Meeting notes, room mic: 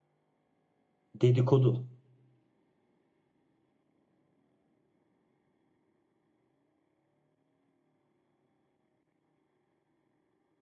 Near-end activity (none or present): present